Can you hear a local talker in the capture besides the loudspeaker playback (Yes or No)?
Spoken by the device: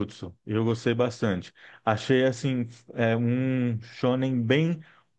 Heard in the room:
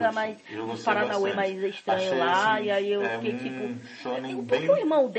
Yes